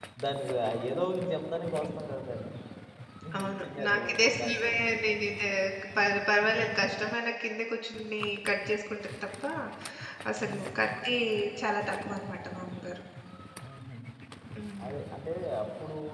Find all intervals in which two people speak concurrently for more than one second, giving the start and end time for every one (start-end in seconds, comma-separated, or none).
3.4-4.7